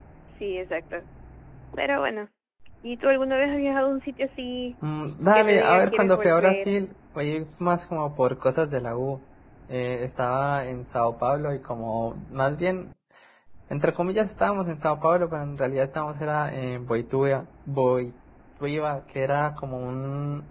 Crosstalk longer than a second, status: present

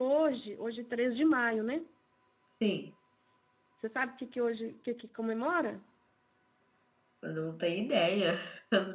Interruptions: none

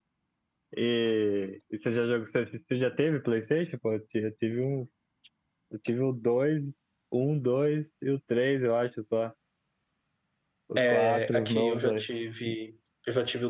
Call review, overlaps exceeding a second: present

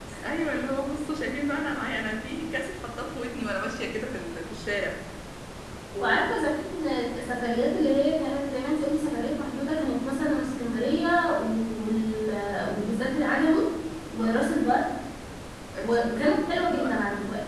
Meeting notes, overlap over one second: present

